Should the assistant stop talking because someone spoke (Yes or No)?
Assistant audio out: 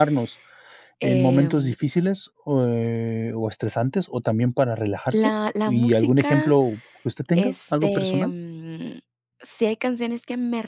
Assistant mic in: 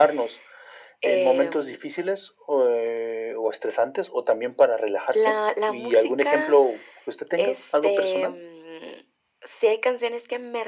No